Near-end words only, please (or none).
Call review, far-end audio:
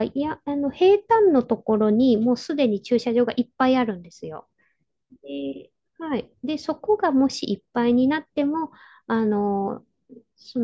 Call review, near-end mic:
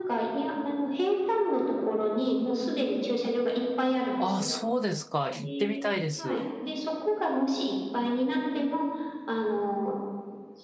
あ、そうですか。行ってみたいです。